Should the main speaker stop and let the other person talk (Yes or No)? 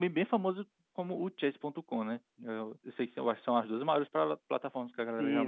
Yes